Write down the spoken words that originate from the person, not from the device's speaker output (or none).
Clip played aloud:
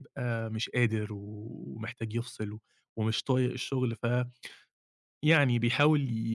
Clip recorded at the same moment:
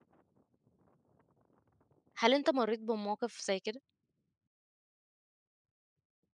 هل أنت مرّيت بمواقف زي كده؟